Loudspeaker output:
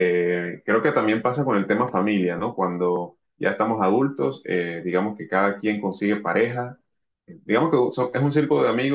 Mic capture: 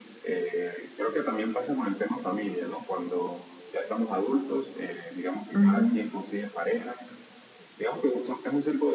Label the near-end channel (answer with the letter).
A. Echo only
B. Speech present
B